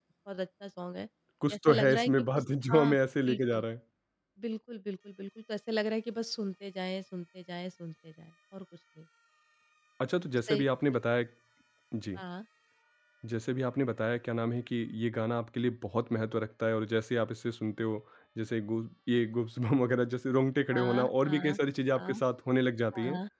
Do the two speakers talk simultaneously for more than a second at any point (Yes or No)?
Yes